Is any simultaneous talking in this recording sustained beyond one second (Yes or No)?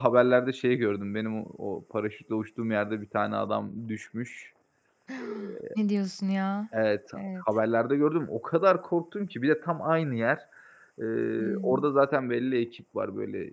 No